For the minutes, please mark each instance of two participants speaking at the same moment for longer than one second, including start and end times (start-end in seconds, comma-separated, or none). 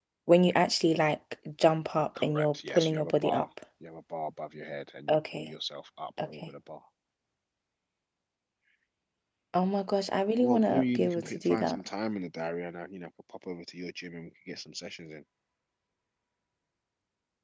2.2-3.4, 10.4-11.8